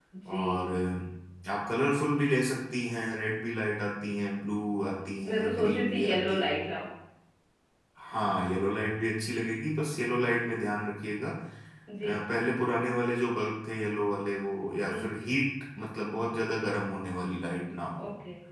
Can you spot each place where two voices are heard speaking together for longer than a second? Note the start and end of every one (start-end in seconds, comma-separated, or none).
5.2-6.6